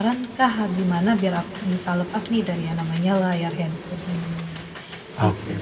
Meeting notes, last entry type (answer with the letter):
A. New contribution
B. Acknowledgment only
A